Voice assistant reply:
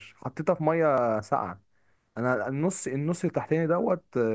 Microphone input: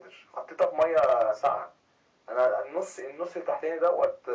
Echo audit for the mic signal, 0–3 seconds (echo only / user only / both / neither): echo only